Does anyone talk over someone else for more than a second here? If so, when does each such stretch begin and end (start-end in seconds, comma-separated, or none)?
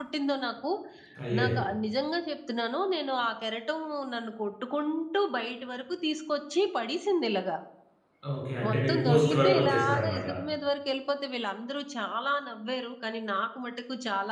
8.7-10.3